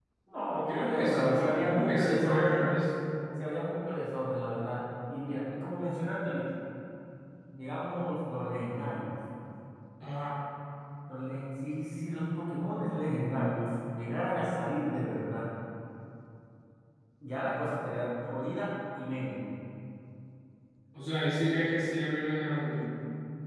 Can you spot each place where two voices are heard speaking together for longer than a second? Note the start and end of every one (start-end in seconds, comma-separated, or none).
0.6-2.8